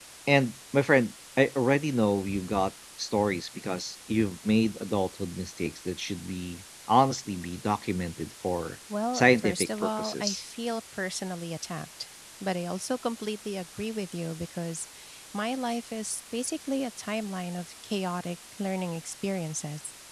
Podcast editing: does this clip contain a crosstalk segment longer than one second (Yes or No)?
Yes